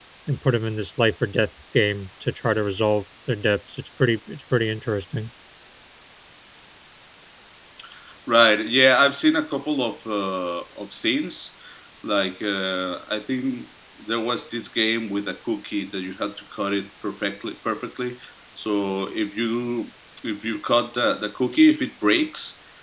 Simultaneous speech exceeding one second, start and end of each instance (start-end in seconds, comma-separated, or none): none